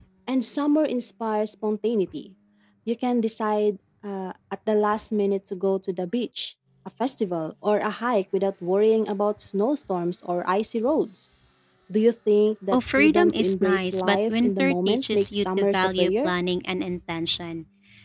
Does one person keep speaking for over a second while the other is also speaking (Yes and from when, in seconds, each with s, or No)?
Yes, from 12.7 s